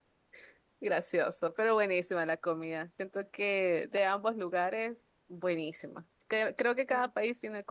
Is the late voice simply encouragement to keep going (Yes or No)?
Yes